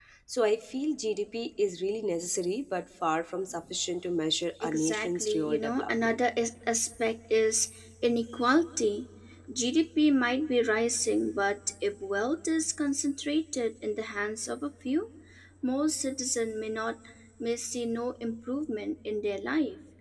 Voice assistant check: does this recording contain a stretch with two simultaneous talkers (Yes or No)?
Yes